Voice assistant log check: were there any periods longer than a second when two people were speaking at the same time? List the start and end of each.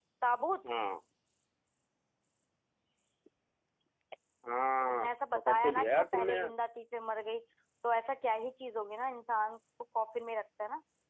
4.9-6.5

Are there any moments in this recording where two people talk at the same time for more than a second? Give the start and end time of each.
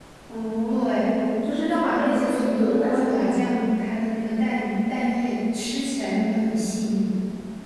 1.7-3.5

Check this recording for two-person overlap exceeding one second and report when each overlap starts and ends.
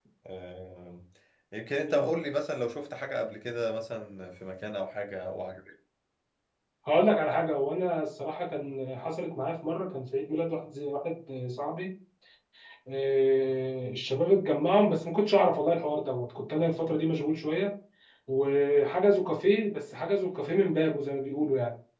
none

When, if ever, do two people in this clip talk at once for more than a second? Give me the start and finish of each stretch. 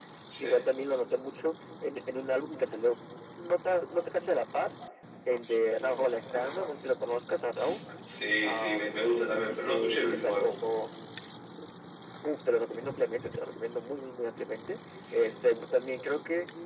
8.4-10.5

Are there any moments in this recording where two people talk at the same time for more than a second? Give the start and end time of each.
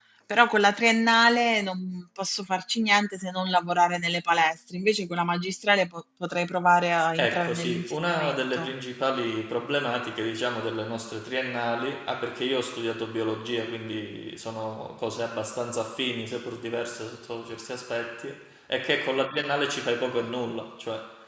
7.2-8.7

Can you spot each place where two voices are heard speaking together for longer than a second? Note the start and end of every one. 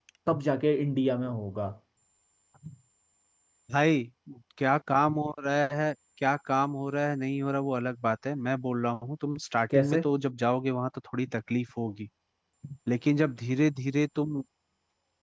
none

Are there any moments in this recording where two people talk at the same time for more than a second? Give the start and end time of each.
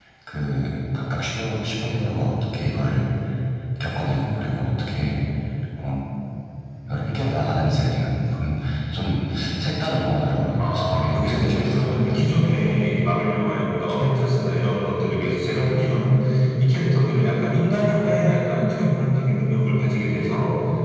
10.6-12.3

